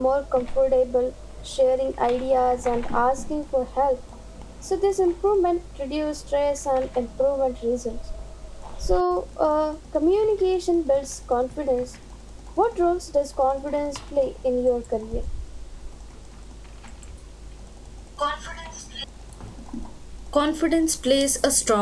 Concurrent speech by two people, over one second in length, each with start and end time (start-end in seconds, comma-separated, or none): none